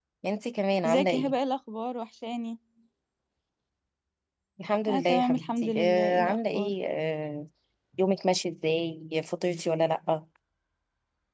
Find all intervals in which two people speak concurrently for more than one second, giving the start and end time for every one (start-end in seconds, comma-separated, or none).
4.9-6.7